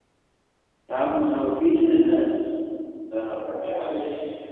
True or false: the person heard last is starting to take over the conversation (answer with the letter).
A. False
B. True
B